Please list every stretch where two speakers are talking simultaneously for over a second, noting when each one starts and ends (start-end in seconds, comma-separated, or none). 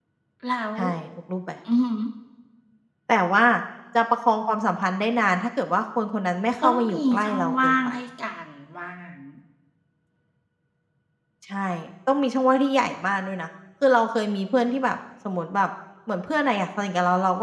6.6-7.9